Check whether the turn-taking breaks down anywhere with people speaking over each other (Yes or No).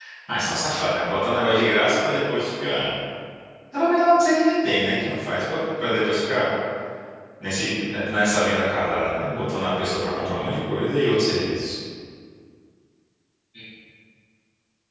No